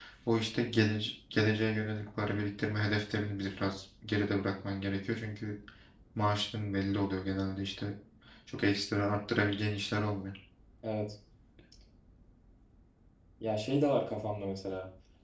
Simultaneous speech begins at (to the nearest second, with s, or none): none